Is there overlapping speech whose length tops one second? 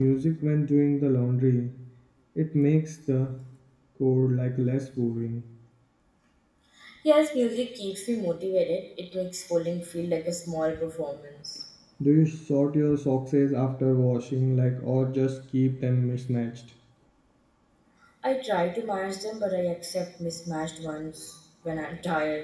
No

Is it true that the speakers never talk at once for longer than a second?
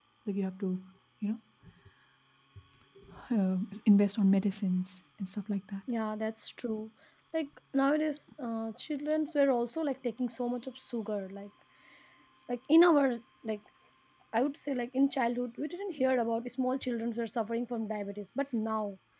Yes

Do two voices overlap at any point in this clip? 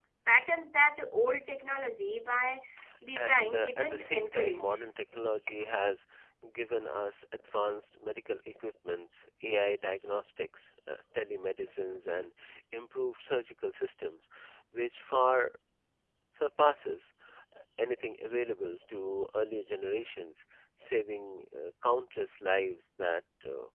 Yes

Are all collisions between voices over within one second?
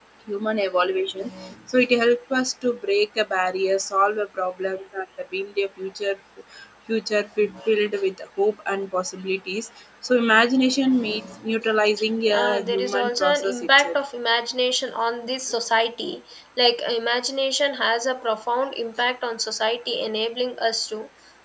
No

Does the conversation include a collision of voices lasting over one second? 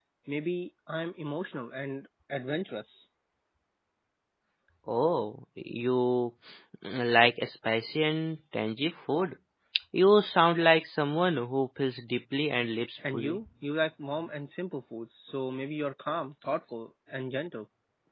No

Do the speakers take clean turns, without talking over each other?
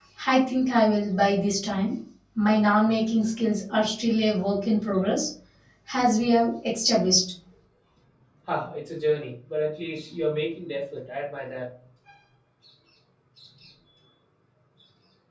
Yes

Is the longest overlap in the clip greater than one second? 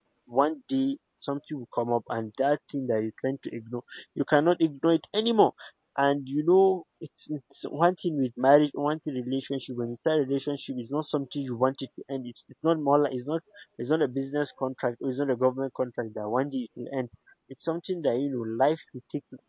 No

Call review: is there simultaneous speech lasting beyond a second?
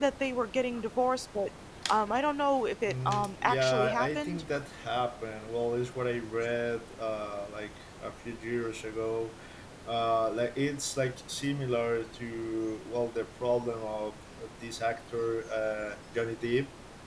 Yes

